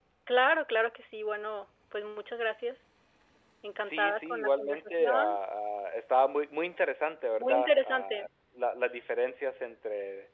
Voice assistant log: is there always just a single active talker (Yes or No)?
No